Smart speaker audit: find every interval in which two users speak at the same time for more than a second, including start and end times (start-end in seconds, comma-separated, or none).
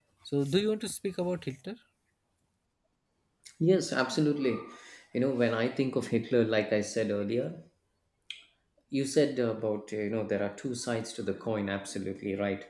none